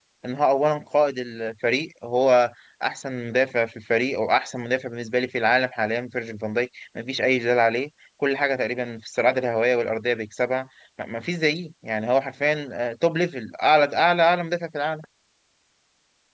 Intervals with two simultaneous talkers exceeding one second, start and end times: none

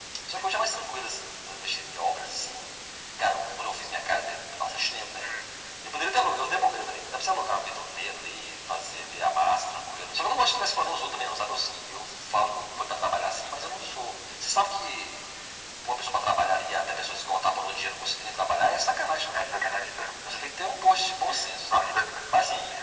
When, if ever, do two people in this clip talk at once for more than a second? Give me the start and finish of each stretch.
none

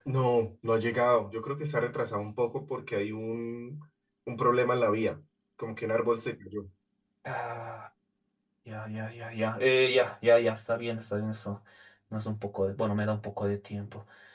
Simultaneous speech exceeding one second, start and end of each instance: none

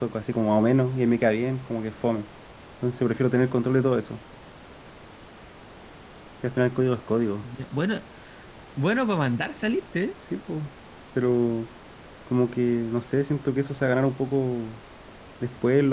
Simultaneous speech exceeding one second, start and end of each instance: none

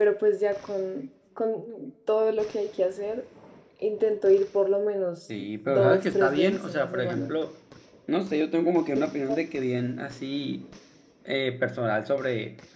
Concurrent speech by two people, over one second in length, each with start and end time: 5.4-7.3

